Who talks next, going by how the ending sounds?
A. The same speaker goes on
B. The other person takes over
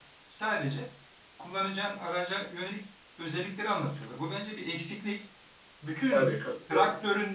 A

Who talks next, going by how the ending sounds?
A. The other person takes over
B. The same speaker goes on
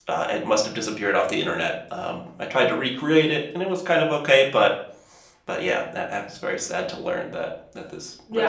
A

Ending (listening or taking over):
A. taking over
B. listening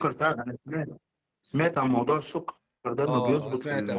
A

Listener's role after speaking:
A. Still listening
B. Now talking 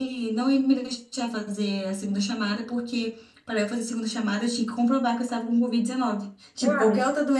A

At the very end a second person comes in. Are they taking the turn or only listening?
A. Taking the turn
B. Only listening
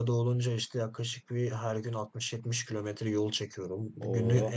B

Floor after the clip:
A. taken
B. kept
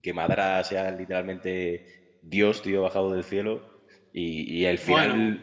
B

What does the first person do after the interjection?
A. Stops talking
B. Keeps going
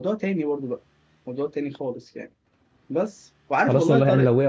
A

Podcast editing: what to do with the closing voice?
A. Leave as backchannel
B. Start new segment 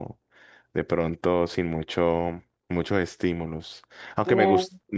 A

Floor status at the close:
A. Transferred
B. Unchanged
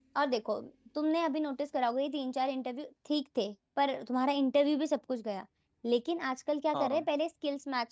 B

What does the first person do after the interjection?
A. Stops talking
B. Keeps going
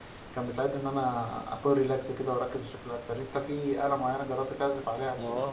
A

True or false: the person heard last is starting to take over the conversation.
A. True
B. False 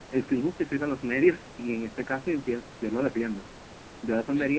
B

